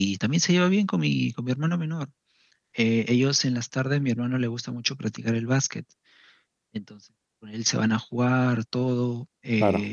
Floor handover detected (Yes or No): No